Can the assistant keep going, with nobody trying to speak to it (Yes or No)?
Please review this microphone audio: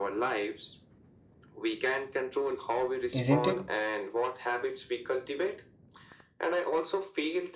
No